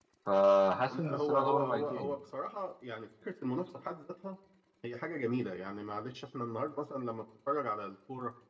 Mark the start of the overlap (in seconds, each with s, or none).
0.9 s